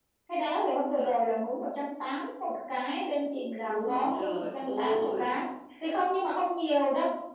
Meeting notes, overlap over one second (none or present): present